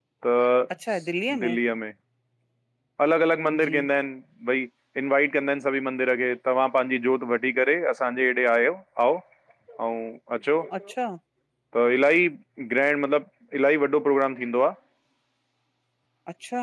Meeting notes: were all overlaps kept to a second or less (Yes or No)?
Yes